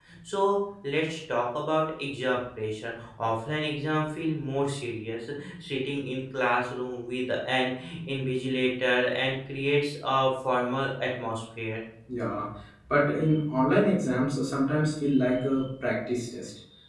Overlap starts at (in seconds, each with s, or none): none